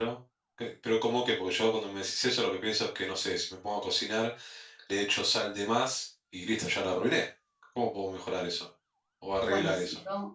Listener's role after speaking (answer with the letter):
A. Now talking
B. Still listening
A